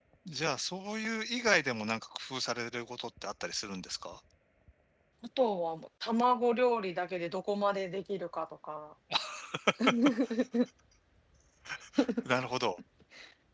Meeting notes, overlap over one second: none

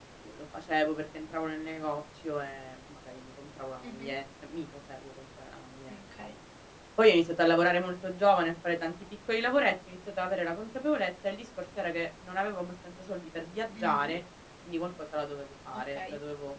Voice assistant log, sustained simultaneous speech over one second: none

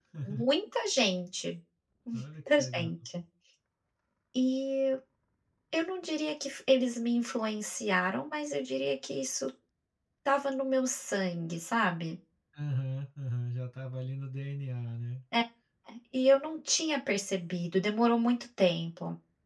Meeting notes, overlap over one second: none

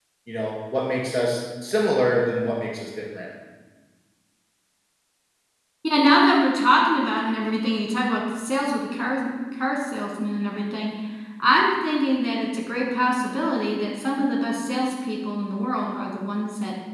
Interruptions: none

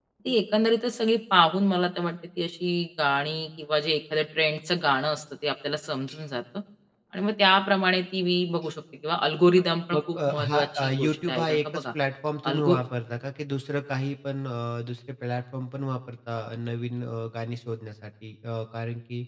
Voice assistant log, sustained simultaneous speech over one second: present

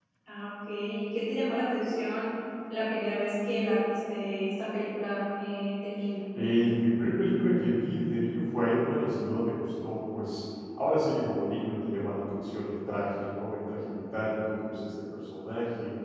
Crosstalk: none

